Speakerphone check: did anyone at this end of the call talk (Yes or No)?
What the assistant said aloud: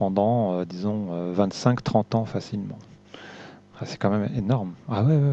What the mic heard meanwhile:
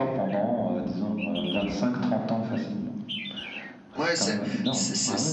Yes